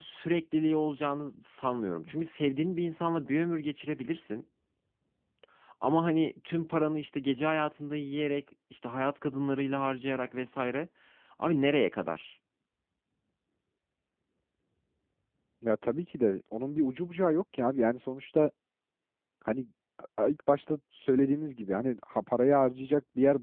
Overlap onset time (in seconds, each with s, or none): none